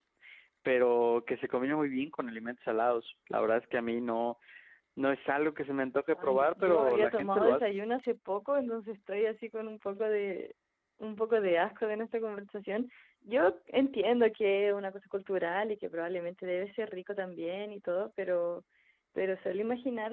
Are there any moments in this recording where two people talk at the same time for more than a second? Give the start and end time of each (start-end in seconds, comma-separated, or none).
6.1-7.8